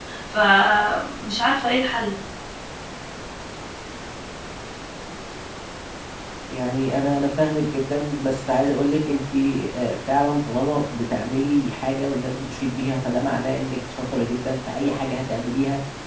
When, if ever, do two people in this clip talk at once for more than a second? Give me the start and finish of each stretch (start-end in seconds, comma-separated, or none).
none